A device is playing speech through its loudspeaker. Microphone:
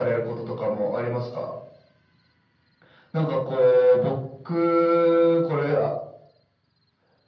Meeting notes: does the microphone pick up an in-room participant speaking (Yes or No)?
No